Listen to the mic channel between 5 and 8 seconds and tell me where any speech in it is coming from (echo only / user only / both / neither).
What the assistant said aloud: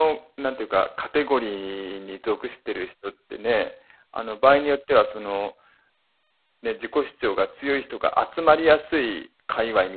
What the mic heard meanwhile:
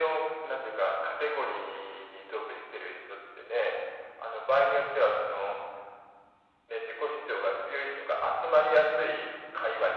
echo only